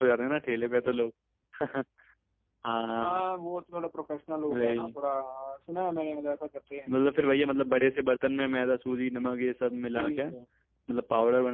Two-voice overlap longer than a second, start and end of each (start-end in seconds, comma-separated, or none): none